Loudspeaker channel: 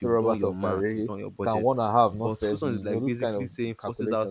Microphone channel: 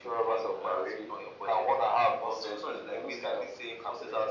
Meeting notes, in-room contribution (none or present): none